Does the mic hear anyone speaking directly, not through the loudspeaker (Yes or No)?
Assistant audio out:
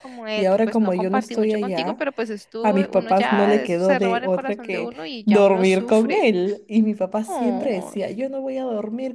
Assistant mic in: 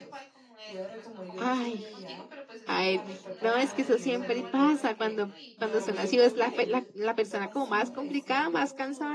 Yes